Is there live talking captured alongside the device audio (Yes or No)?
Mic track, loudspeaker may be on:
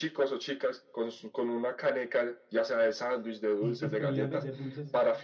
Yes